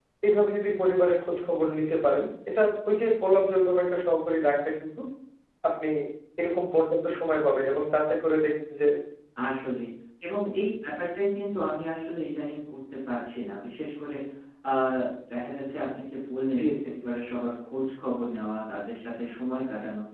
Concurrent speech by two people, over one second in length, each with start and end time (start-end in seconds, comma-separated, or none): none